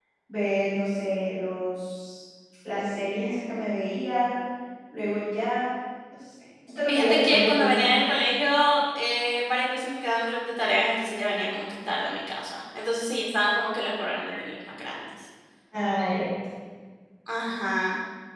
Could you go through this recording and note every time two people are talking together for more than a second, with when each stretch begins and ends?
6.9-8.1

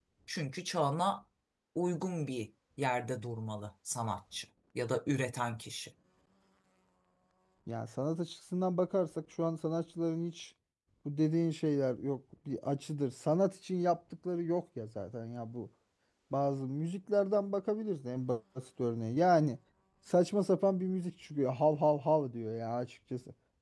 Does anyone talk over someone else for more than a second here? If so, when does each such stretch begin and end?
none

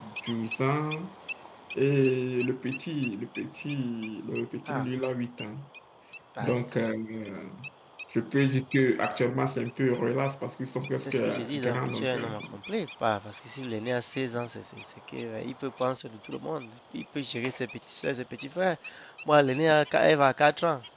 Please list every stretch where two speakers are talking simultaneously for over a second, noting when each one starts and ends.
11.0-12.3

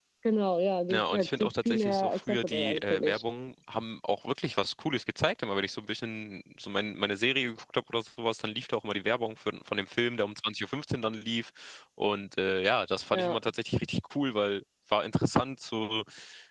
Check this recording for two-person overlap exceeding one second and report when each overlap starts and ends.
0.9-3.2

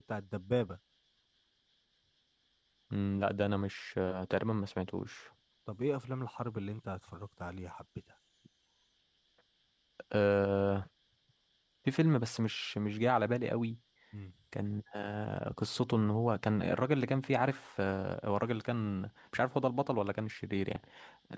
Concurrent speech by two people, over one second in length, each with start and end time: none

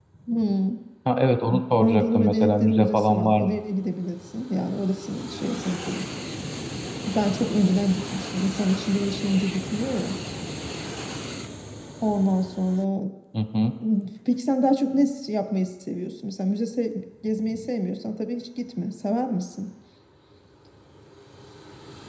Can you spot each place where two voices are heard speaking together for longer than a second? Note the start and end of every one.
1.8-3.5

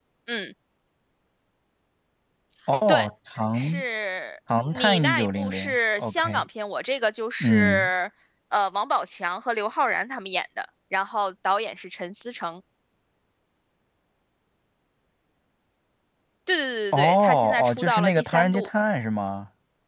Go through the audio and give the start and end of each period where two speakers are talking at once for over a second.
4.7-6.4, 16.9-18.7

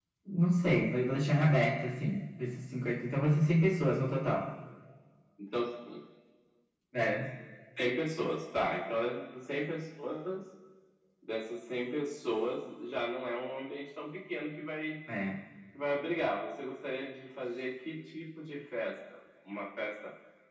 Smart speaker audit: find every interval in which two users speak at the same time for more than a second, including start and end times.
none

